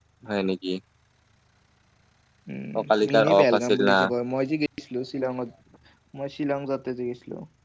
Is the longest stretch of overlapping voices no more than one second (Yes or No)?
No